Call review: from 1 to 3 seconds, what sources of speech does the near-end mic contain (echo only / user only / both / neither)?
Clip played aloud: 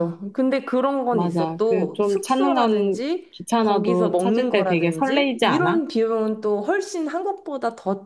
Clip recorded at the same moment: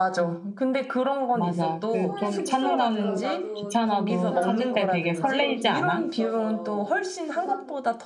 both